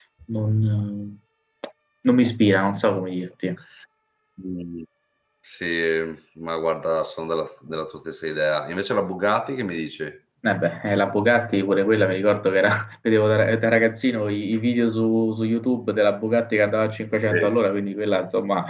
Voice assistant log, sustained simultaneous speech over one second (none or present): none